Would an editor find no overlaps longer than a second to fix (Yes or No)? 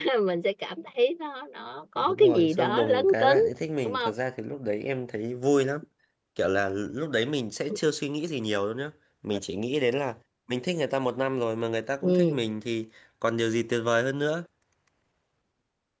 No